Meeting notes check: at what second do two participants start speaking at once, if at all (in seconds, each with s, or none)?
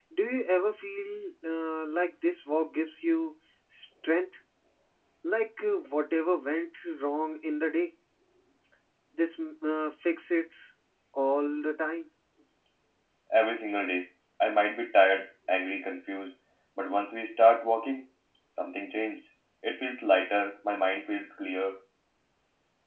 none